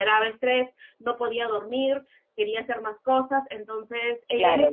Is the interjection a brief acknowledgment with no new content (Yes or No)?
No